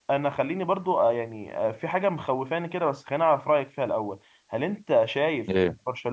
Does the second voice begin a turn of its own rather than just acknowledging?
No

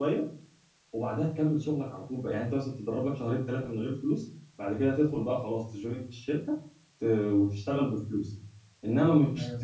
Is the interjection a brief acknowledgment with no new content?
Yes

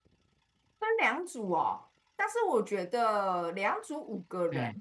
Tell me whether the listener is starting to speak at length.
No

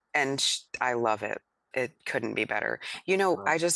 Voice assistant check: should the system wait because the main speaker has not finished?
Yes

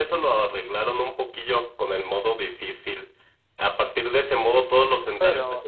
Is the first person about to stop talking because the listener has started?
No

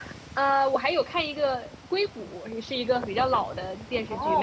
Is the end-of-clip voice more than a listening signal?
Yes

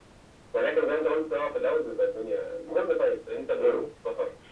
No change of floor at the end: Yes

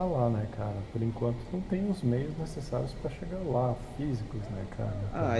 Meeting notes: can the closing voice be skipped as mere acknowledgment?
No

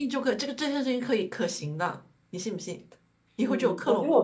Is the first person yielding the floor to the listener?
Yes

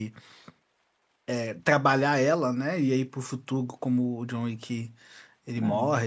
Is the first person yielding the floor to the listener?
No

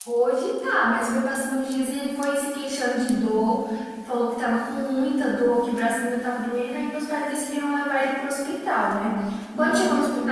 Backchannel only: Yes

